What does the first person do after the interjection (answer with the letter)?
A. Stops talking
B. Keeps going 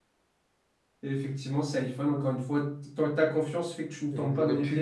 A